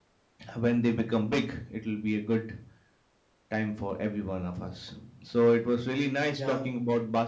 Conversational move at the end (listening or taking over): listening